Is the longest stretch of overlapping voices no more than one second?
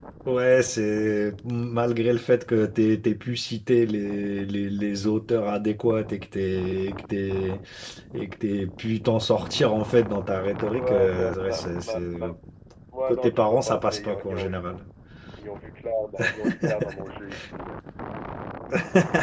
No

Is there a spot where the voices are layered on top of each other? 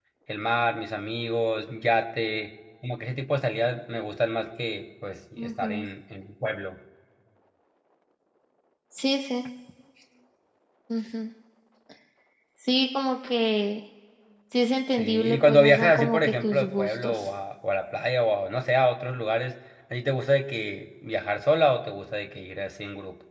Yes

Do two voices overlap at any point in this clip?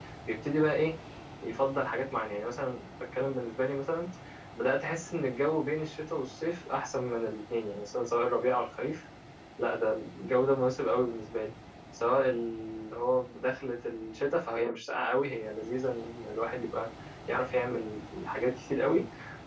No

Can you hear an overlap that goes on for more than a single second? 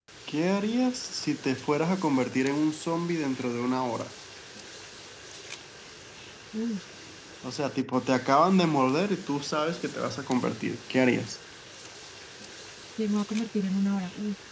No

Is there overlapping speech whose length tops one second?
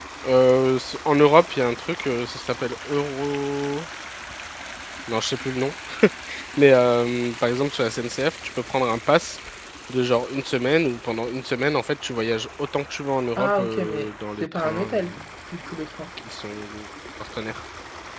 Yes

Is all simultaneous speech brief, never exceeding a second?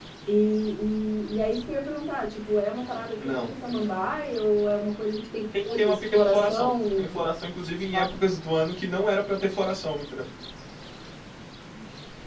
No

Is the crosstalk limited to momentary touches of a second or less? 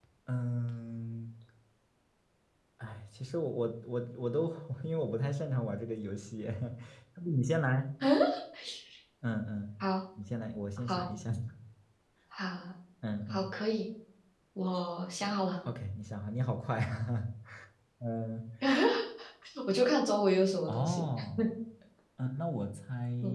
Yes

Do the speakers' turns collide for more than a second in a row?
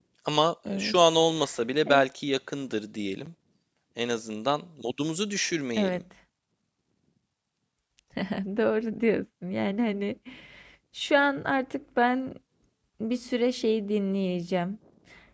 No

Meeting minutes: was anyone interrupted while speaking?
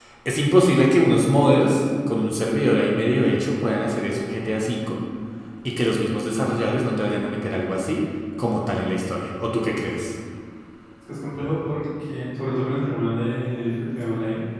No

